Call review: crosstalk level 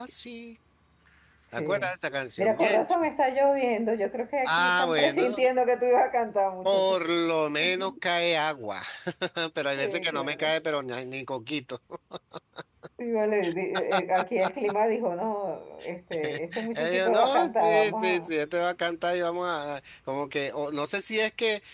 present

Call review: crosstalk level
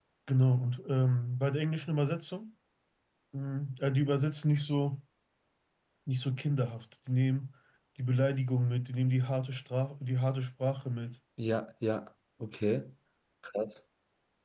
none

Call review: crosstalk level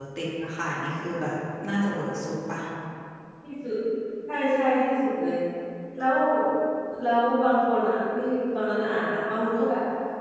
none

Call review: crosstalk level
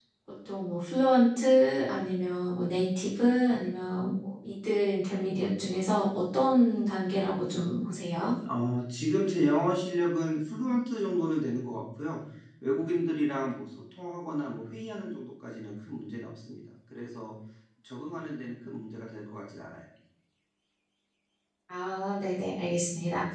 none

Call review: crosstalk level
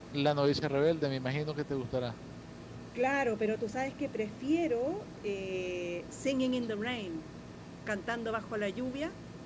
none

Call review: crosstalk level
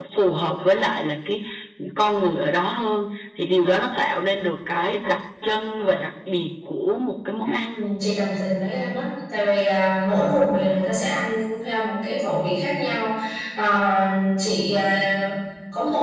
none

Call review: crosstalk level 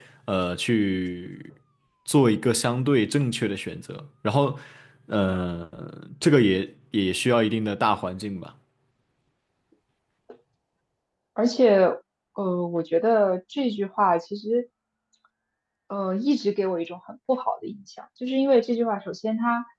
none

